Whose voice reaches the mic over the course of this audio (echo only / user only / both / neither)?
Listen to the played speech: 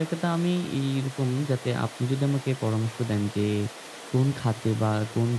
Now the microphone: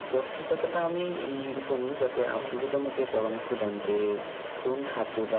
both